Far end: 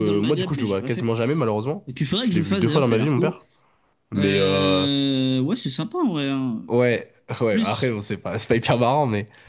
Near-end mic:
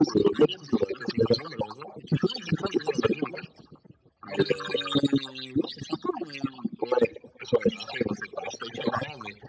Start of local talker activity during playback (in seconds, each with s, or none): none